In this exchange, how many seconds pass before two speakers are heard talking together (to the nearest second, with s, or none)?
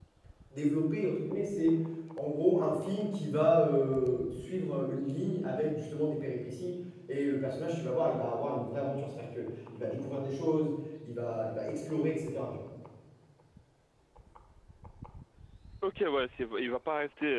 none